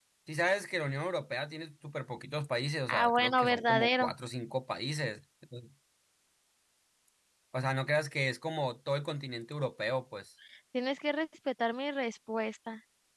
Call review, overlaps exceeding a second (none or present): present